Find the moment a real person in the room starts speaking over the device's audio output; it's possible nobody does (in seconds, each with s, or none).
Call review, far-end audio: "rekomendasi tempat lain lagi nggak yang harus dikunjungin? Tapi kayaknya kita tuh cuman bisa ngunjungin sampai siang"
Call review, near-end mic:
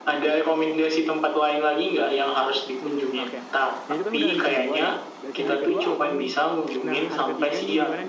2.8 s